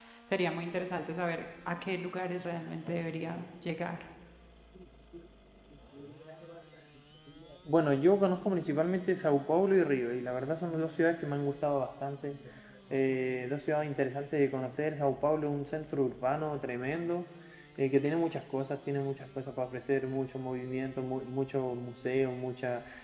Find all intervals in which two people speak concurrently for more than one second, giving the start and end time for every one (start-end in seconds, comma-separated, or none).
none